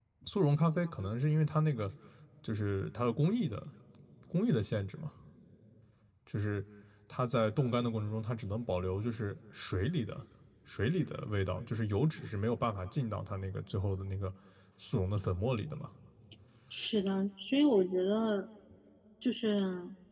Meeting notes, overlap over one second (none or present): none